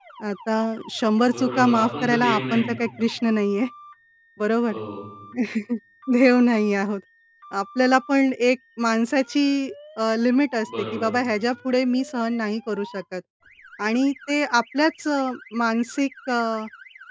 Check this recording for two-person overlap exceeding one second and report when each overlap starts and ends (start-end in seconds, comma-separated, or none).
1.2-2.7